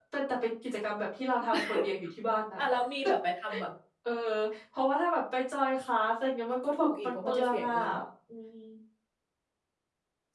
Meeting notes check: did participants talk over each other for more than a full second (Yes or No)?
Yes